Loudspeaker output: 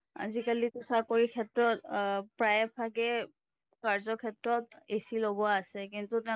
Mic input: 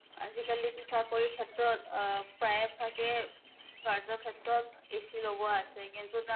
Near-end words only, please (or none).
none